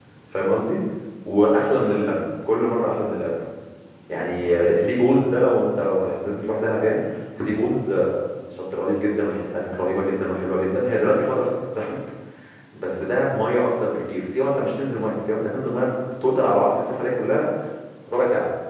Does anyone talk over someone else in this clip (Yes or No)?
No